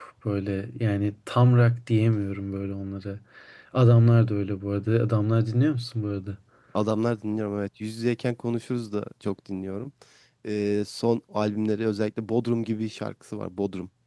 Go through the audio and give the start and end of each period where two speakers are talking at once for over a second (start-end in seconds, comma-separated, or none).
none